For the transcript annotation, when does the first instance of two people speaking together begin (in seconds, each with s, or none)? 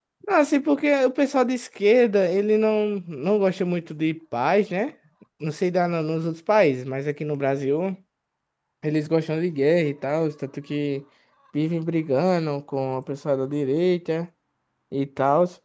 none